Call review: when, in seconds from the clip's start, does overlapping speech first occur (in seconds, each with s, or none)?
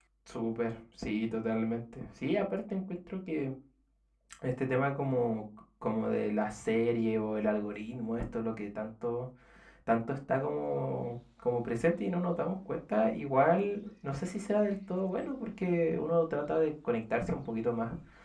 none